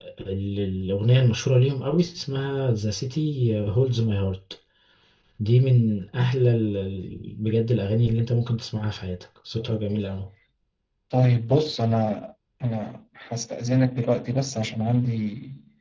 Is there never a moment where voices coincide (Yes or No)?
Yes